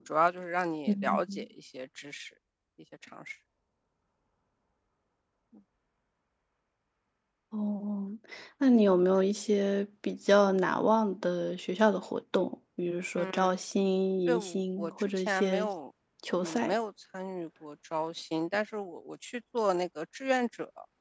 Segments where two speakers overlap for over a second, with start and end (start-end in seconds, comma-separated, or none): 14.3-15.7